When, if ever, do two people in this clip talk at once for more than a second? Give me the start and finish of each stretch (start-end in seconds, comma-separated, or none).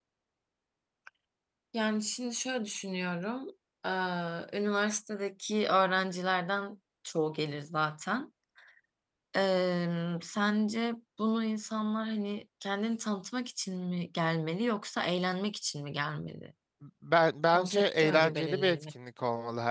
17.5-18.8